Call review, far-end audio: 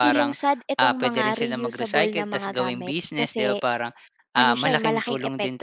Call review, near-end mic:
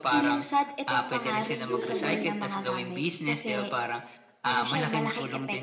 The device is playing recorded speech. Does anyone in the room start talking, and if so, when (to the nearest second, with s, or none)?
2 s